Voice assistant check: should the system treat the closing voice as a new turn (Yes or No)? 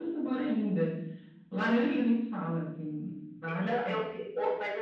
Yes